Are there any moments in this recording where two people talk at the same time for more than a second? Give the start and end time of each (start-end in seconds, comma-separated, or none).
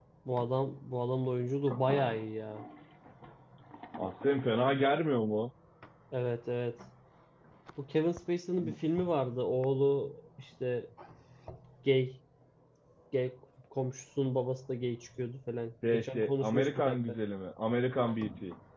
15.9-17.2